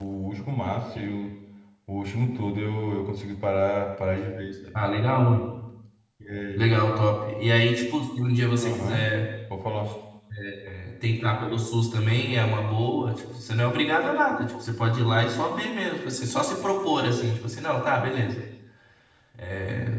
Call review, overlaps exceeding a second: none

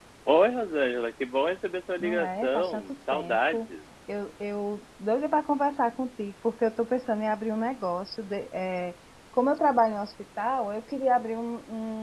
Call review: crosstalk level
present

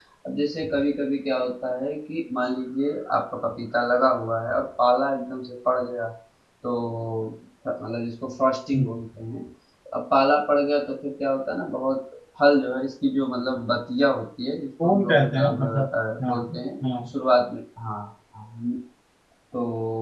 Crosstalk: present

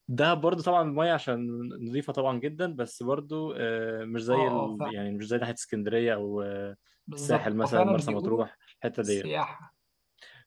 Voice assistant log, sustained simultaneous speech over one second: present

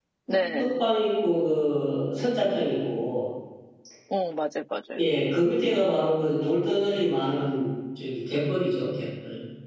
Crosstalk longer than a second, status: none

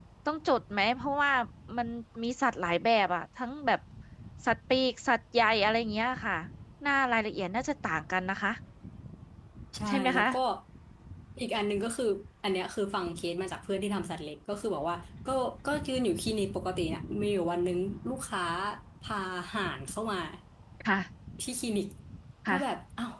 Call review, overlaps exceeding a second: none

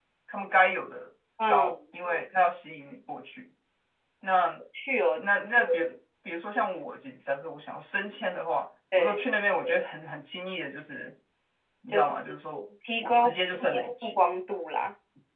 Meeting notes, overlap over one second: present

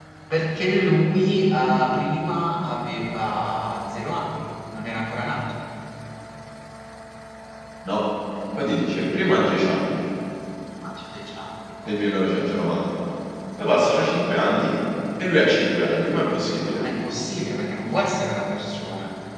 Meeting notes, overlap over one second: none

